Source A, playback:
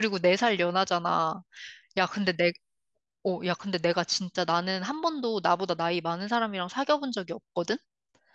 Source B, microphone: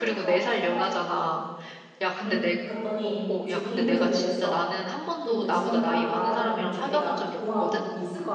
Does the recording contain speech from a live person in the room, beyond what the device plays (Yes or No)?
Yes